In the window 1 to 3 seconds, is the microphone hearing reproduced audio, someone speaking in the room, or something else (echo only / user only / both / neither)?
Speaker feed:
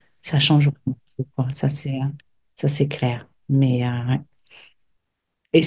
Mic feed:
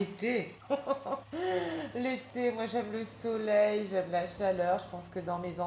user only